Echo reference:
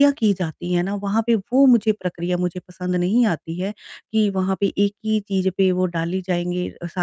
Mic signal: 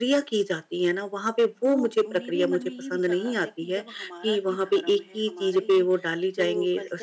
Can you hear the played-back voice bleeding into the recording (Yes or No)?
Yes